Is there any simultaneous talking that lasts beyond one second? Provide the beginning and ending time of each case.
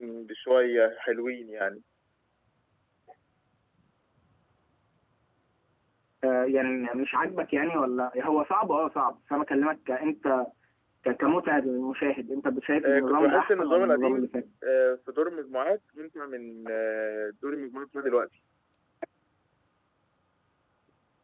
12.8-14.3

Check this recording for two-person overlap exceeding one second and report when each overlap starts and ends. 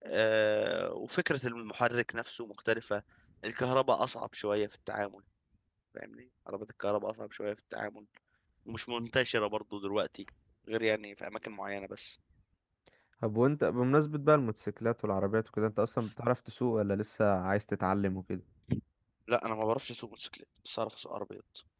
none

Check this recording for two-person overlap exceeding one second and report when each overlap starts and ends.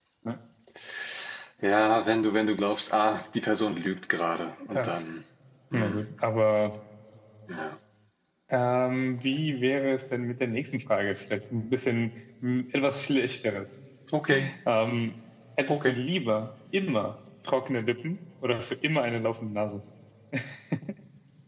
none

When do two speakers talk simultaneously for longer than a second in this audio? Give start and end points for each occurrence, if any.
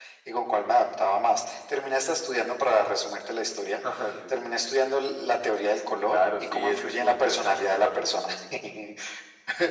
6.1-8.3

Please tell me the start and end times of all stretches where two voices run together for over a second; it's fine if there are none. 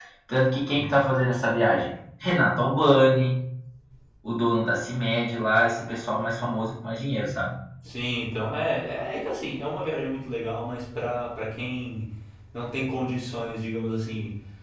none

